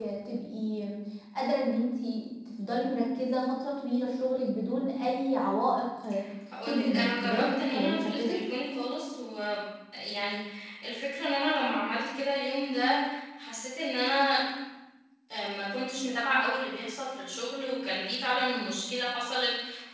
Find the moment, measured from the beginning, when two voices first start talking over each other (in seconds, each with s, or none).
6.7 s